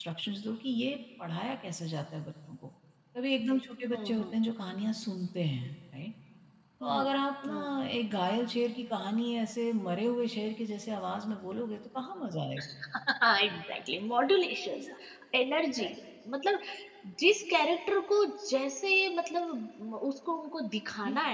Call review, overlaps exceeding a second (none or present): none